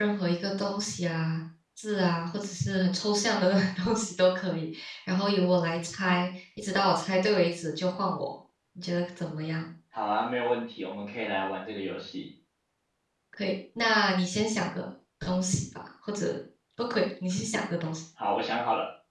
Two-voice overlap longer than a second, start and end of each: none

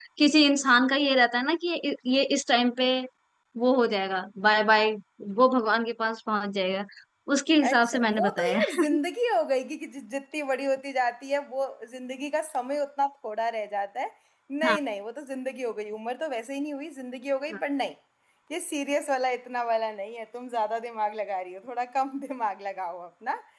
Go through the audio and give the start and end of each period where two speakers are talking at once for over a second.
7.6-8.8

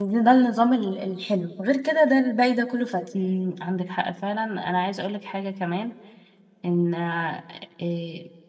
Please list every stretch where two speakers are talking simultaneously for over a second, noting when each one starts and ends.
none

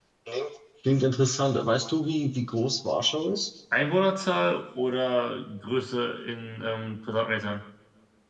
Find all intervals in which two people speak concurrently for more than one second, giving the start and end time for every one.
none

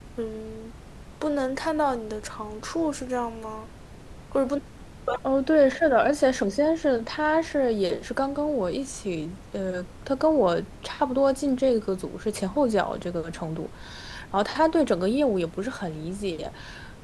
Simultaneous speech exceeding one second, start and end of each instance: none

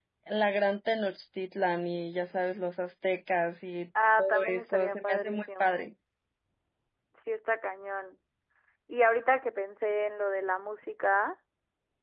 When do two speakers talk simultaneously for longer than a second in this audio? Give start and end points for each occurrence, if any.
4.2-5.9

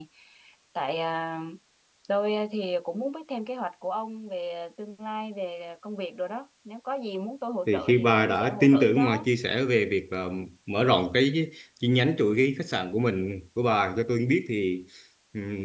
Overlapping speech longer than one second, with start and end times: 7.7-9.2

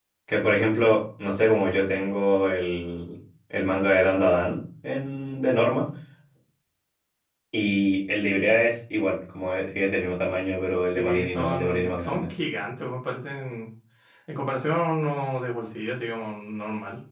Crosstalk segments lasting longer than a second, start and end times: 10.9-12.2

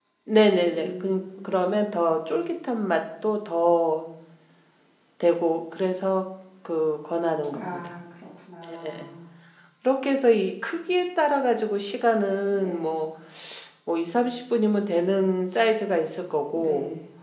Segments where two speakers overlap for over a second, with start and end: 0.7-1.9

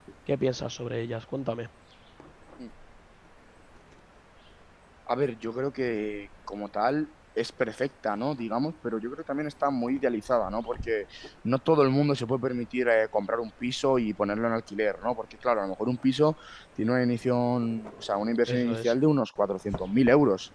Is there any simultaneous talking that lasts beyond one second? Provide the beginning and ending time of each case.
none

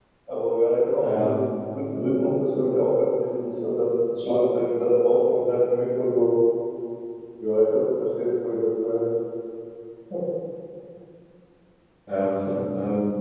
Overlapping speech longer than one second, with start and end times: none

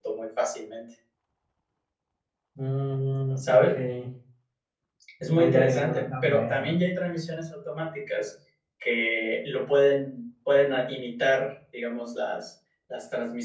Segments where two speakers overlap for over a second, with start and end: 5.4-6.7

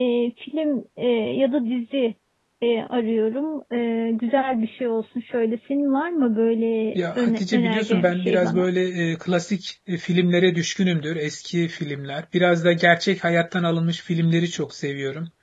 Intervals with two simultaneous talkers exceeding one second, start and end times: 6.9-8.7

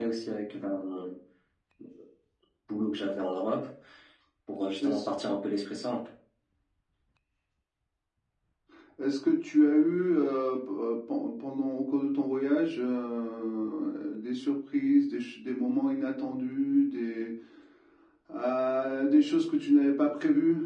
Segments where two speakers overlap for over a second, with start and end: none

